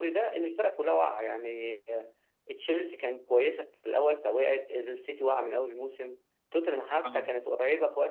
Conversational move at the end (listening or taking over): listening